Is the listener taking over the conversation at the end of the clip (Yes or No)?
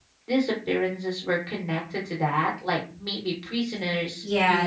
Yes